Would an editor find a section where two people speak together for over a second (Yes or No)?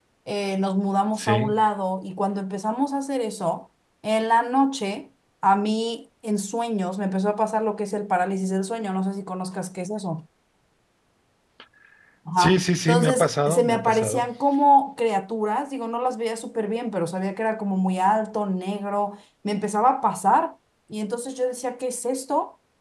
Yes